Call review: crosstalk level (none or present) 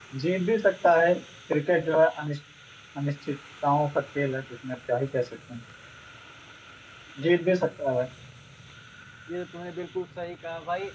none